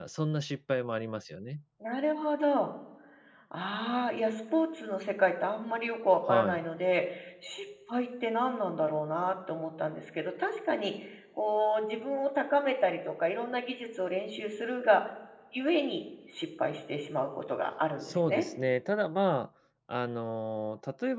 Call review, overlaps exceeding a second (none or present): none